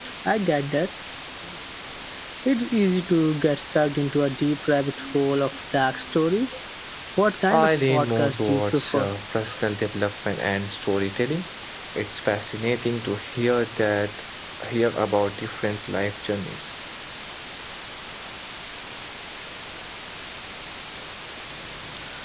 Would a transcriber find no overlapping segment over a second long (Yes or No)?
No